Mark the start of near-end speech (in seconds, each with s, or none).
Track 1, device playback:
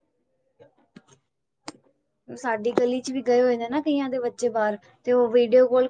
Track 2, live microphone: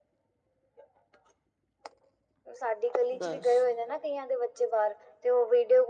3.2 s